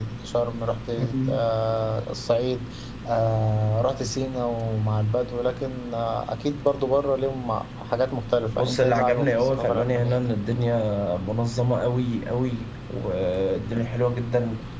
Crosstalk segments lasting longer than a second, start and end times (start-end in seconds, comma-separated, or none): 8.5-10.2